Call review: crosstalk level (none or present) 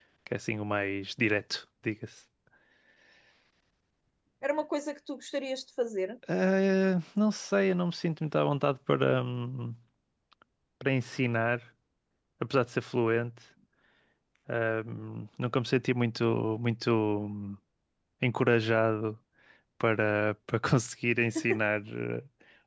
none